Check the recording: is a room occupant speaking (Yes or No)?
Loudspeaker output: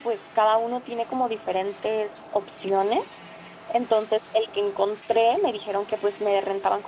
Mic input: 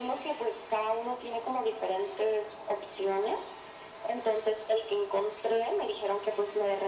No